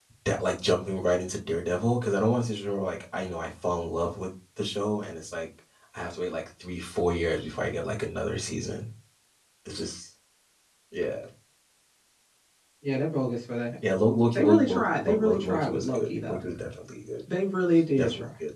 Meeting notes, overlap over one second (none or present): present